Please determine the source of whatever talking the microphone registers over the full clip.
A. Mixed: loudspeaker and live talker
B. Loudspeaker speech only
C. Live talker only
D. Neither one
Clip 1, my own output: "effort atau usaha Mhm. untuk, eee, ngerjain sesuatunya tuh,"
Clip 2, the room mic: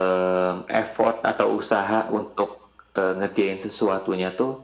B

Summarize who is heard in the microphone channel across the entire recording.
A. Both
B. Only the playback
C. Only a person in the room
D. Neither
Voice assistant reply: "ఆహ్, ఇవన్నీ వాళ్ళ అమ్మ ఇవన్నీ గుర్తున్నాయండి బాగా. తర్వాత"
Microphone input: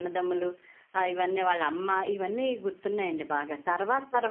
B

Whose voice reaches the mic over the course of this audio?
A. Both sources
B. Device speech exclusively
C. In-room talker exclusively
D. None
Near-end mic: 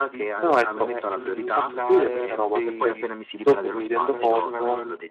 A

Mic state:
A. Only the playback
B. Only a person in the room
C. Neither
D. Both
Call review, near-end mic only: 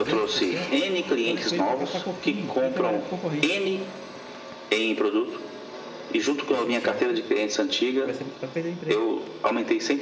D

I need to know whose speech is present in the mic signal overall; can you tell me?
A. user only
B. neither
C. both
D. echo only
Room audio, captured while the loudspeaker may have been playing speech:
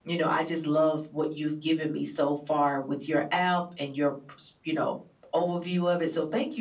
D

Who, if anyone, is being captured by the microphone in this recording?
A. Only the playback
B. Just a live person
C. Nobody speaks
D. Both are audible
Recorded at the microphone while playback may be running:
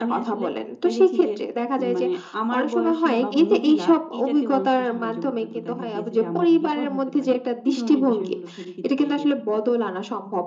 A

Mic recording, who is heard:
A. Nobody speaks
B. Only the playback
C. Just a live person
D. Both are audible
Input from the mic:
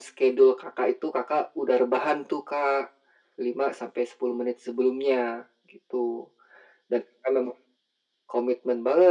B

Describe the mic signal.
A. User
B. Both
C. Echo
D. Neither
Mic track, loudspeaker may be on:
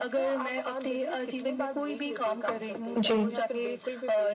B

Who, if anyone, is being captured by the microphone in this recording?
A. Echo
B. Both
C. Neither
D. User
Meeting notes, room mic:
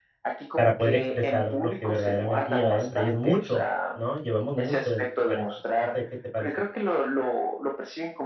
B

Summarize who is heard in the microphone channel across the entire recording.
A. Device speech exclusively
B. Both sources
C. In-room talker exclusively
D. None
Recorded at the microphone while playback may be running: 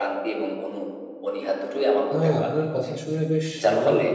B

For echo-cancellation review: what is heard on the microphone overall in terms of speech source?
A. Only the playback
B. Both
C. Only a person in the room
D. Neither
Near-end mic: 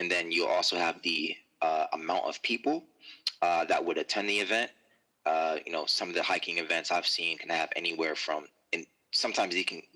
A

